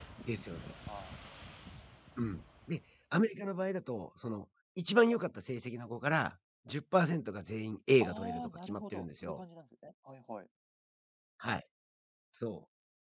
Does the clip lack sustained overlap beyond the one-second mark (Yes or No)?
No